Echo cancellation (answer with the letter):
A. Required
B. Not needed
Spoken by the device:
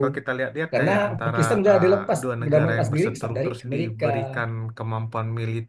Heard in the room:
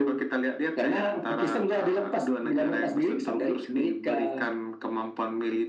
A